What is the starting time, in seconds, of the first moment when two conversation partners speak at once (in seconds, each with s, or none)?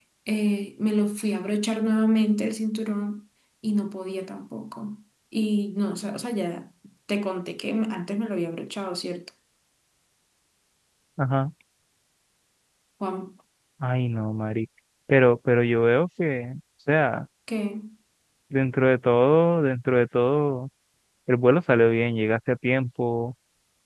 none